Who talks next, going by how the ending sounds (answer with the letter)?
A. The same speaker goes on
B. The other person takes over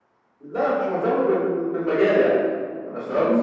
B